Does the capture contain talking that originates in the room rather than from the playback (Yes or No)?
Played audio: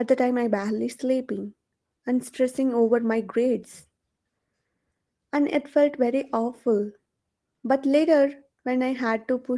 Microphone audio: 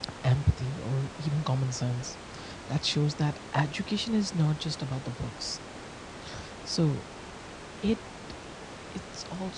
Yes